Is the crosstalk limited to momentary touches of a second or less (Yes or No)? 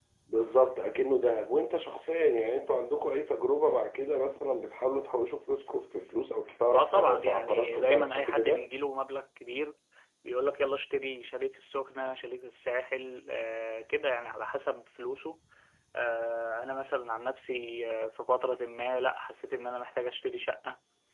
No